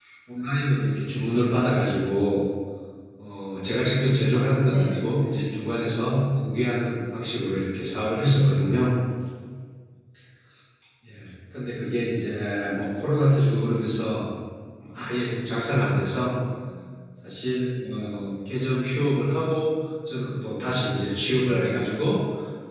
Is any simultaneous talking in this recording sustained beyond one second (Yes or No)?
No